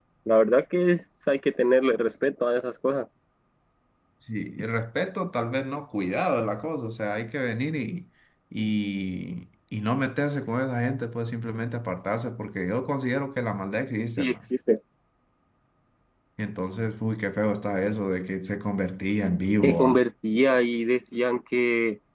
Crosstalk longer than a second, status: none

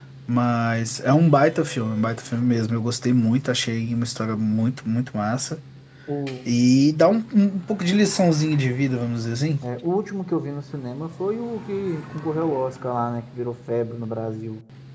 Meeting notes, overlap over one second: none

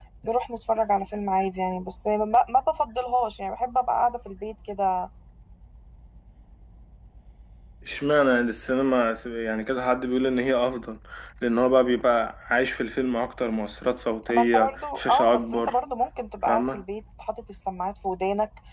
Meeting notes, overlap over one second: present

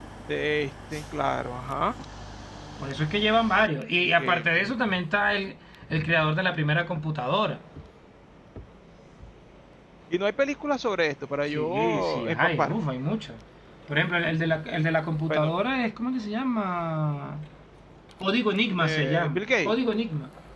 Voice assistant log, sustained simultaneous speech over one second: present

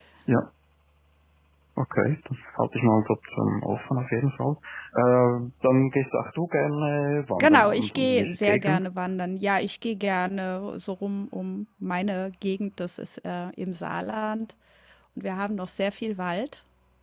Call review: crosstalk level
present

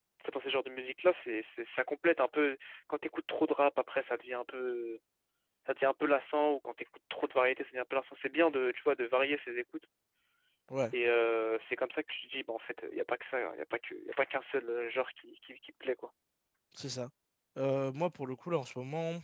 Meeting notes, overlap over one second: none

